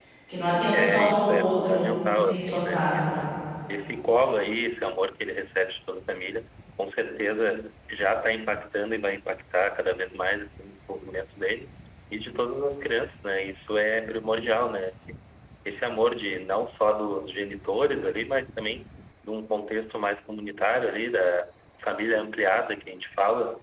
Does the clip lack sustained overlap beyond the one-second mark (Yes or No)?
No